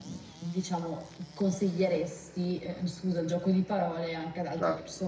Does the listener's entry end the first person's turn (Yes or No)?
Yes